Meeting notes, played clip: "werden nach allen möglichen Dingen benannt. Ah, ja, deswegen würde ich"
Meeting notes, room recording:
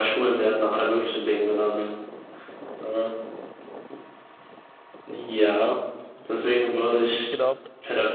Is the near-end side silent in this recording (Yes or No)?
No